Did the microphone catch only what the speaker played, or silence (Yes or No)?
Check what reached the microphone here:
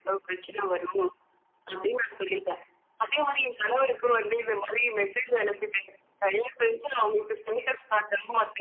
Yes